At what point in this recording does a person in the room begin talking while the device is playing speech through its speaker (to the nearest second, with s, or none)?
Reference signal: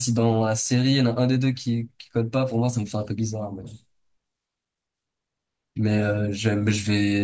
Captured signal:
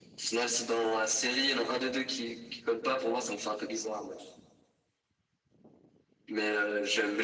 none